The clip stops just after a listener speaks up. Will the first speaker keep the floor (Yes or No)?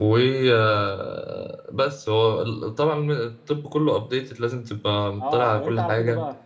No